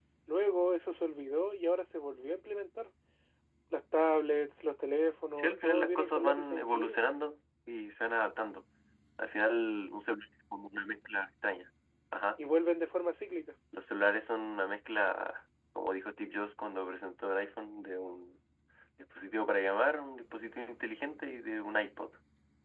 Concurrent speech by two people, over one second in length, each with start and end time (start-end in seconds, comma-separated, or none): 5.4-7.0